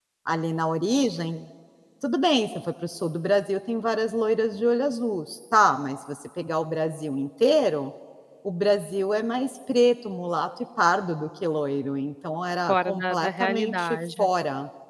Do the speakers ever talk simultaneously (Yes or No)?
Yes